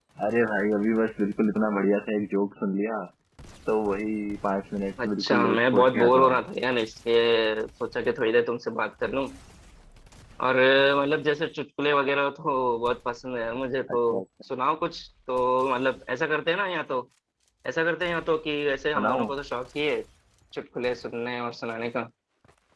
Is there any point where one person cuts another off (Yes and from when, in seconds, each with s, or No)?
Yes, from 5.0 s